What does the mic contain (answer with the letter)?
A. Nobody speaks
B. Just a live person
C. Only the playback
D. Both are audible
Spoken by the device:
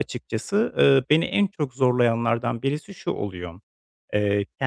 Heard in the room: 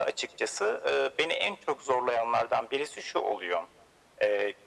C